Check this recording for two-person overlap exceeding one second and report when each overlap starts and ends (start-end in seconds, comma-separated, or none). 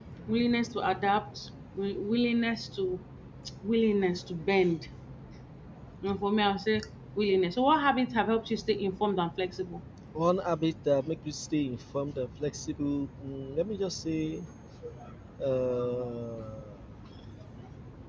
none